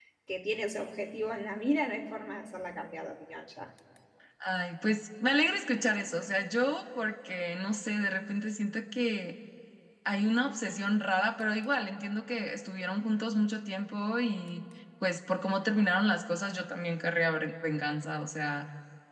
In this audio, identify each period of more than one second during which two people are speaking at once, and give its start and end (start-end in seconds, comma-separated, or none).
none